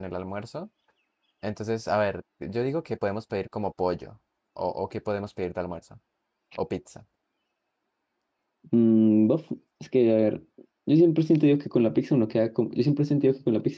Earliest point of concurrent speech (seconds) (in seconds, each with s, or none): none